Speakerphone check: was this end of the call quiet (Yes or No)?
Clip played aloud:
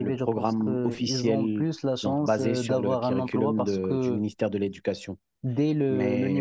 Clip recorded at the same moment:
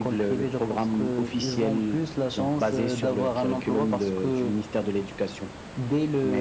Yes